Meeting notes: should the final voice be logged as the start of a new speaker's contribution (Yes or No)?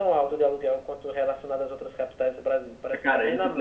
Yes